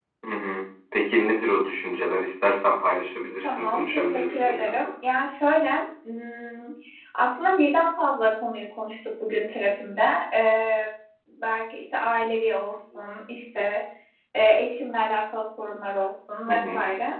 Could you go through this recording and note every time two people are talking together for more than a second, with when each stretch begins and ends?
3.4-4.7

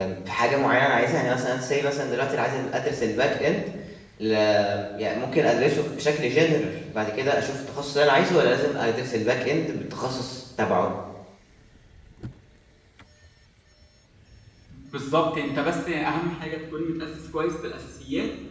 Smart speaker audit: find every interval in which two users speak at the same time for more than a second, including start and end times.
none

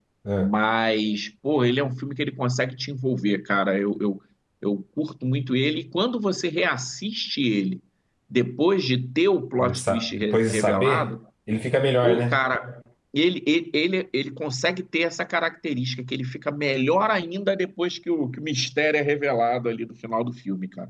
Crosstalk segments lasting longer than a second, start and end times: 9.6-11.1

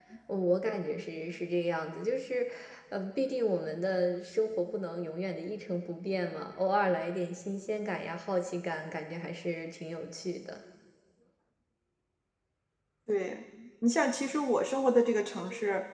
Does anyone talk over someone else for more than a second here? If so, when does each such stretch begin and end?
none

